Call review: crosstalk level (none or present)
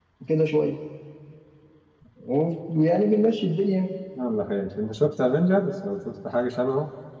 none